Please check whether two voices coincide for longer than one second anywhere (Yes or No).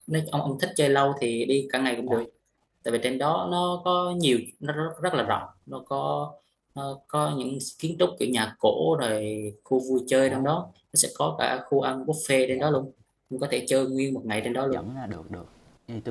No